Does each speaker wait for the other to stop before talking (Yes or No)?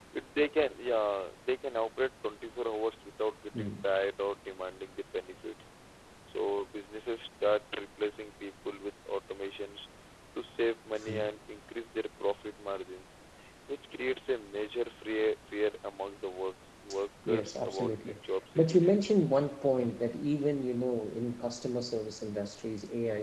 No